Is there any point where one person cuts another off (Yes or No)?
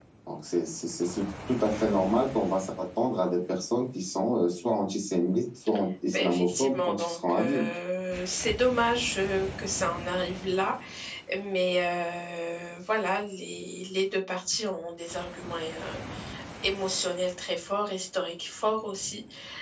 Yes